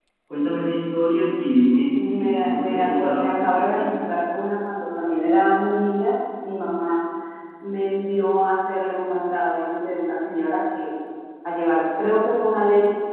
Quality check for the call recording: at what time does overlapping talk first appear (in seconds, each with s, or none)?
1.9 s